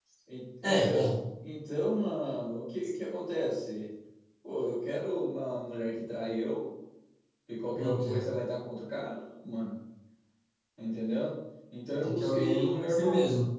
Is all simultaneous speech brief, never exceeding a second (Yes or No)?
No